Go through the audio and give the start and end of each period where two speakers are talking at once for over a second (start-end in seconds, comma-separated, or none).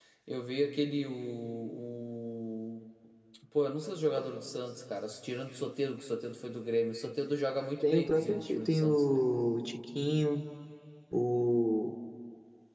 7.8-9.2